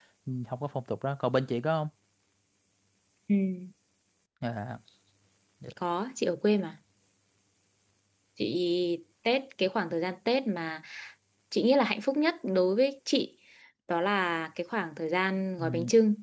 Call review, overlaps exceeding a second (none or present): none